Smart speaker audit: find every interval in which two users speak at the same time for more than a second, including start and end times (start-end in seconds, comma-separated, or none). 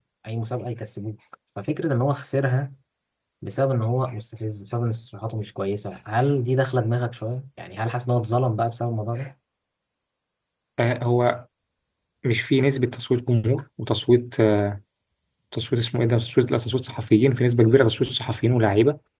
none